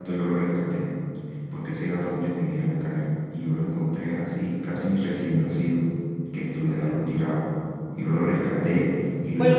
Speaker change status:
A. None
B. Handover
B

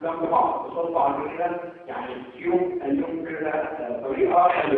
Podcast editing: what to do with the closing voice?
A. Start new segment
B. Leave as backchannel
A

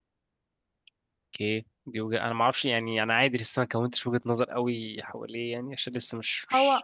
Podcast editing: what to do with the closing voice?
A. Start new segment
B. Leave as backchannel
A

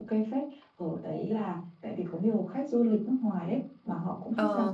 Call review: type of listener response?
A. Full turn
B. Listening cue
B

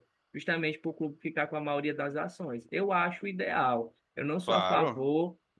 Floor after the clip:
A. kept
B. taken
A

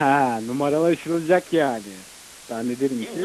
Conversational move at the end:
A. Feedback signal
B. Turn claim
B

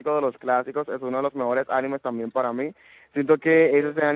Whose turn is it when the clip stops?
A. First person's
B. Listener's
A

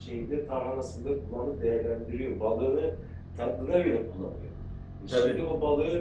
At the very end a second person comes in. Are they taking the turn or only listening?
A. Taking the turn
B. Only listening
B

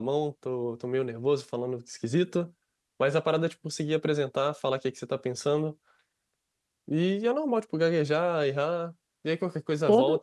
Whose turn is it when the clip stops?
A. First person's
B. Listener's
A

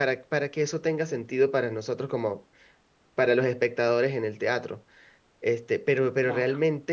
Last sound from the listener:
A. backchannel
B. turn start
A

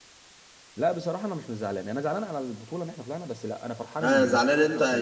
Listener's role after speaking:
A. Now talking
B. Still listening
A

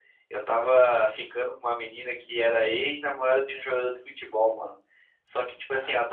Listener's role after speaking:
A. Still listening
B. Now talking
A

